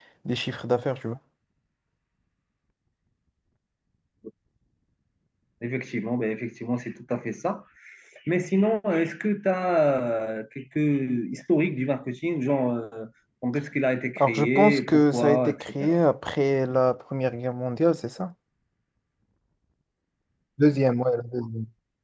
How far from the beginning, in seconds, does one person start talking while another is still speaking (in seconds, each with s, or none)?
14.2 s